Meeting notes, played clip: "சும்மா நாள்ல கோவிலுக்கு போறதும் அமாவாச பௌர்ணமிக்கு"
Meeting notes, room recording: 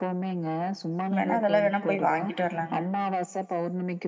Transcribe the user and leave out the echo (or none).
எங்கன வெளிய வேணும்ண போய் வாங்கிட்டு வரலாங்க